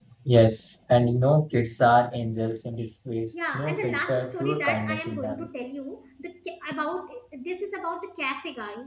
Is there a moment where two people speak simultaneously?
Yes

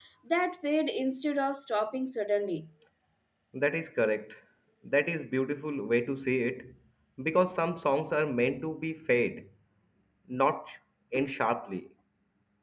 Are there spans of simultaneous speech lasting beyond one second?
No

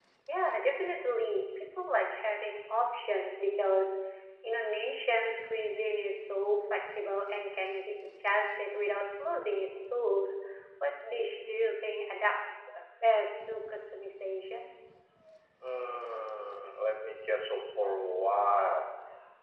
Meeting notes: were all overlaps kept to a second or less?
Yes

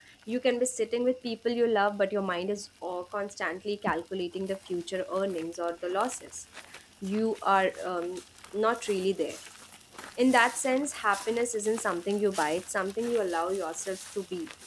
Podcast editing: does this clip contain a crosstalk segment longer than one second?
No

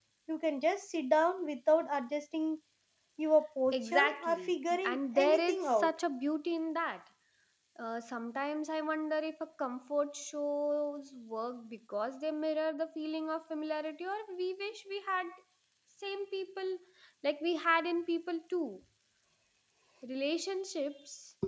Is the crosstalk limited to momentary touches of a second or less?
No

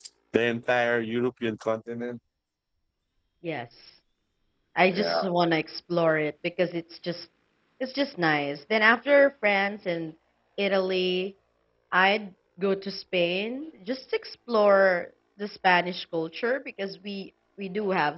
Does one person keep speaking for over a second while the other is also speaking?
No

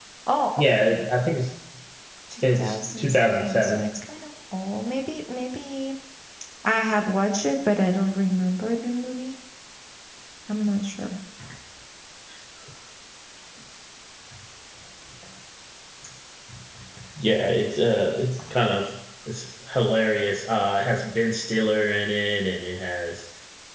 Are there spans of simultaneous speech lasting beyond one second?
Yes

